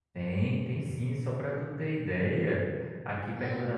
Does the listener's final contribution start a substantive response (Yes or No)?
No